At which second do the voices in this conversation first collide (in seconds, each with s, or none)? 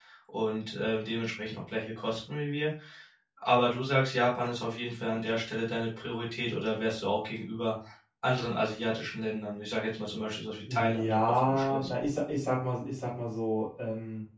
10.7 s